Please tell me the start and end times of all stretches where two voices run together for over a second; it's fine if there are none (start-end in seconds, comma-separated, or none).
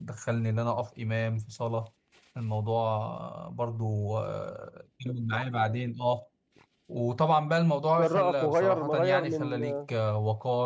8.0-9.6